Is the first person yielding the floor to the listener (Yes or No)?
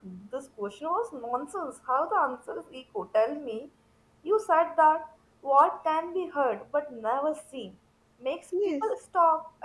No